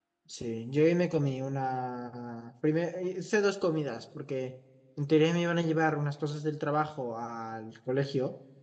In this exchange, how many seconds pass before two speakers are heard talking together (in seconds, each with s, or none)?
none